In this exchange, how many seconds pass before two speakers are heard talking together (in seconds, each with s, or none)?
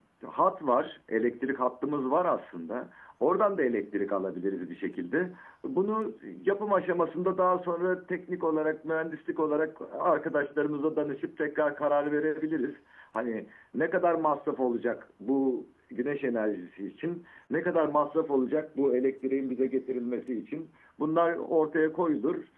none